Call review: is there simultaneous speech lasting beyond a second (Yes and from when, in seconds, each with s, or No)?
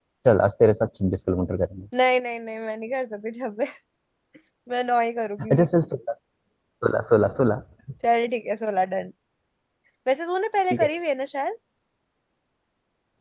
No